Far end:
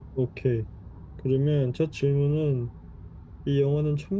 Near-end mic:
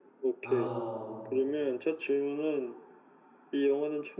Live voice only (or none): 아, 어,